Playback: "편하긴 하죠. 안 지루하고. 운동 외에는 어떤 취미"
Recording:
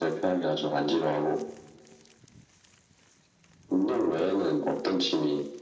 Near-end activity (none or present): none